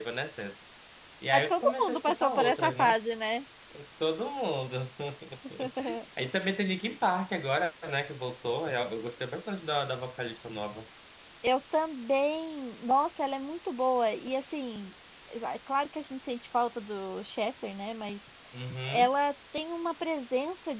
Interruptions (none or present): present